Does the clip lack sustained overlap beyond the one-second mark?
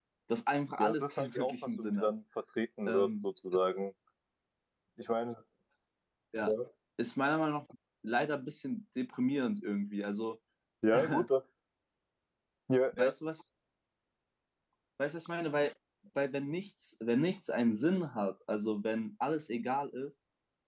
No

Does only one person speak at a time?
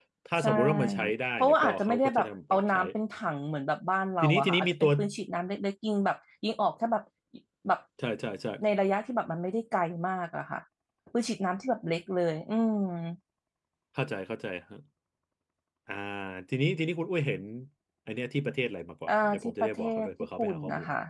No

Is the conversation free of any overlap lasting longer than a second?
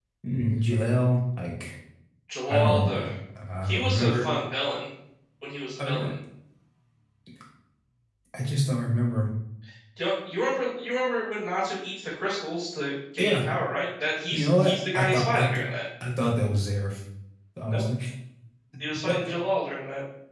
No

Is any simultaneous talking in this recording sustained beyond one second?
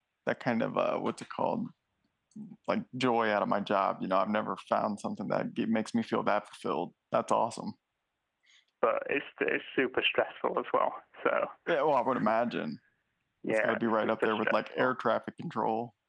Yes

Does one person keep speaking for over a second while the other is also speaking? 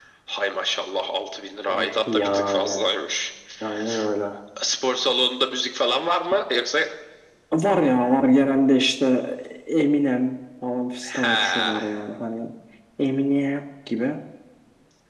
Yes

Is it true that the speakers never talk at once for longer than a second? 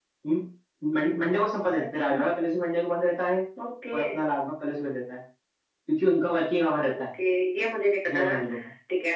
Yes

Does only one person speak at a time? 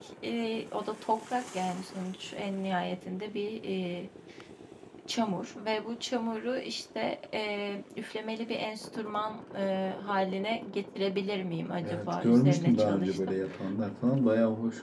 No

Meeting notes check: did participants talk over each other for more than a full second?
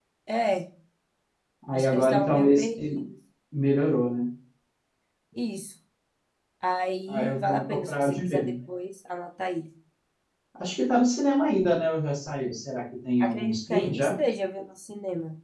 Yes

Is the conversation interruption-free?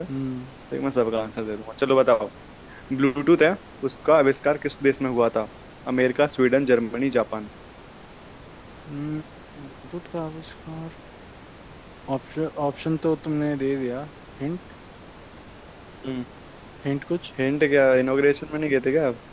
Yes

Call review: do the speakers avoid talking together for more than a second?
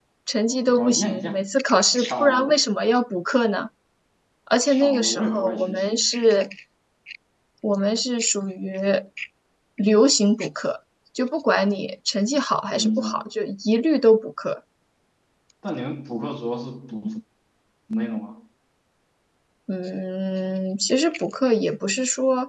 No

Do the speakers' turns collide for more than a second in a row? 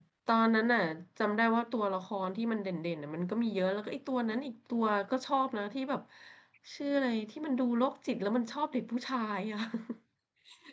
No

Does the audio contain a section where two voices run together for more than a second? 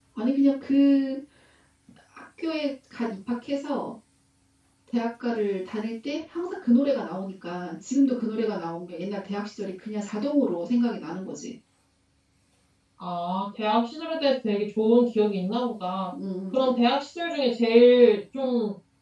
No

